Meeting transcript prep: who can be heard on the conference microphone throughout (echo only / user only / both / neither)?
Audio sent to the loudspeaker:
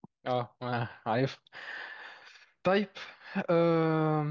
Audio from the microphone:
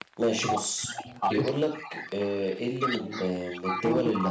both